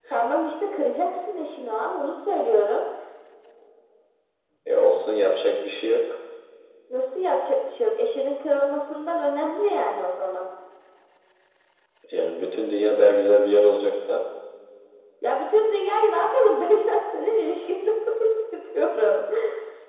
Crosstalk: none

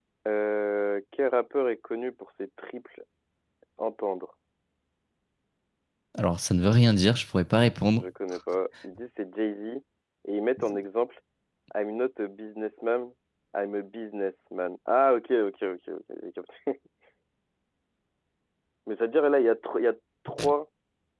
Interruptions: none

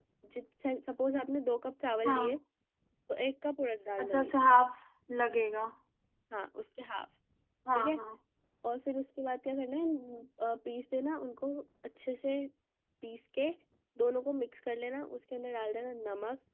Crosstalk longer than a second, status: none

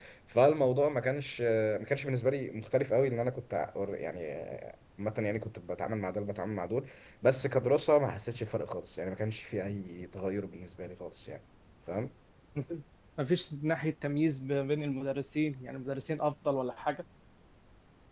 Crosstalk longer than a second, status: none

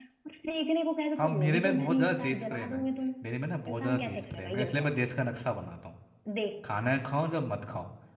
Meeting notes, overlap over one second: present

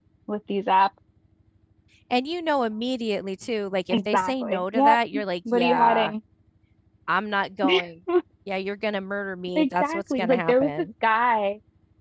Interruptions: present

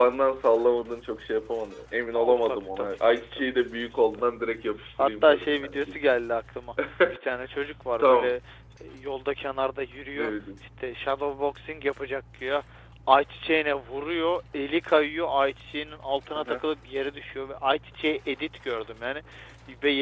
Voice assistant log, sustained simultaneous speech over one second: present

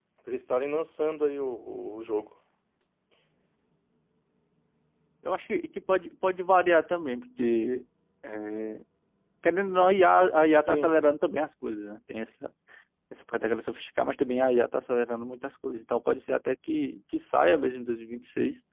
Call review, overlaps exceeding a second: none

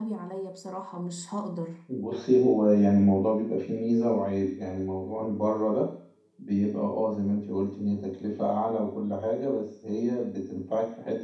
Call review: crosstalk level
none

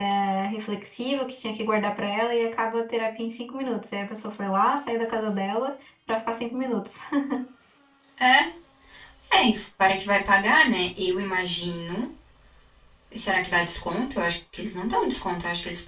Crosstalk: none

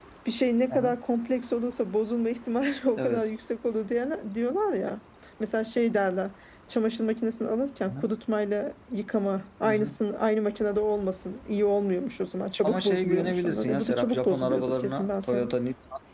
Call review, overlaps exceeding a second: present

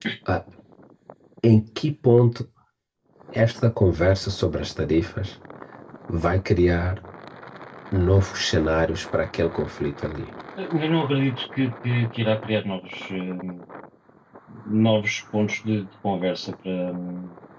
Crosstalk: none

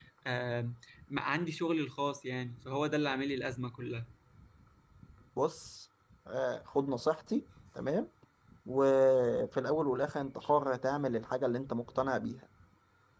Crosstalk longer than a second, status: none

